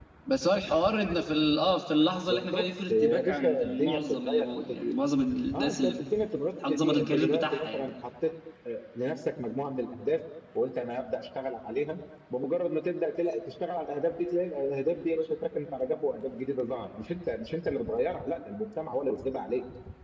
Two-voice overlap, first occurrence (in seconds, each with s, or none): 2.3 s